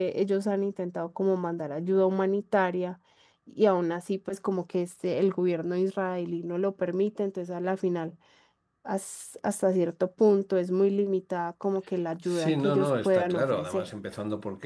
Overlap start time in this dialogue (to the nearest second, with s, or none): 12 s